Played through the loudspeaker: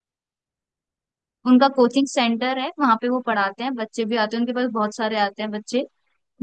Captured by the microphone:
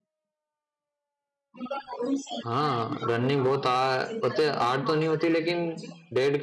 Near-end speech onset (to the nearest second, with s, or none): 2 s